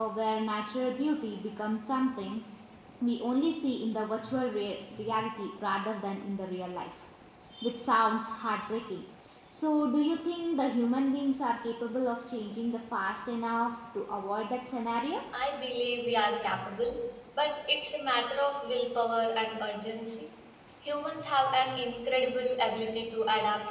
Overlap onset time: none

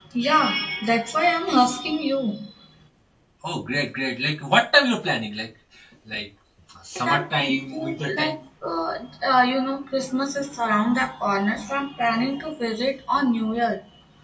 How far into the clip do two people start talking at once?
7.0 s

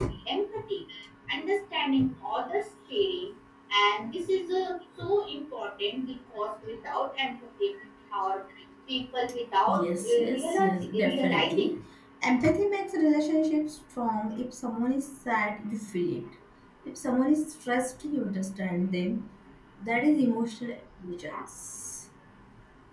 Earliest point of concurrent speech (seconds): 9.7 s

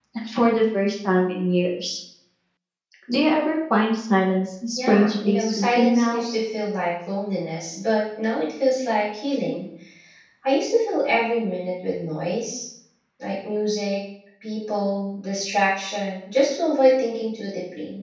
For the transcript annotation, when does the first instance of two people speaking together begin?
4.8 s

